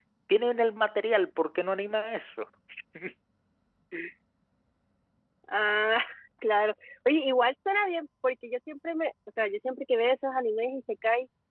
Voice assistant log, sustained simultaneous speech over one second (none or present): none